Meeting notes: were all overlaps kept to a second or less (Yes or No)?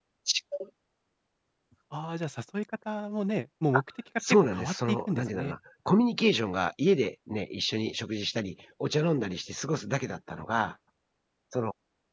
No